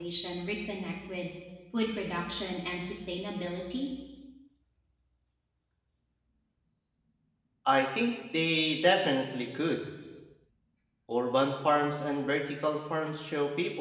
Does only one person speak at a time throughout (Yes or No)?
Yes